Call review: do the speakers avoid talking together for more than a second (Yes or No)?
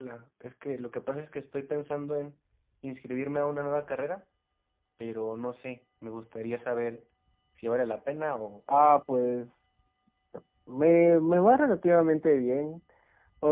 Yes